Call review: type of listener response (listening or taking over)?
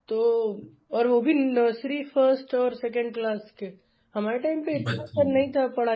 listening